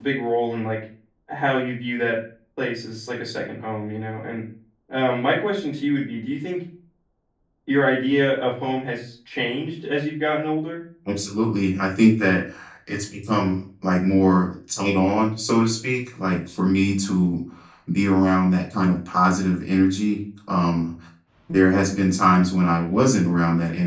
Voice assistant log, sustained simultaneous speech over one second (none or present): none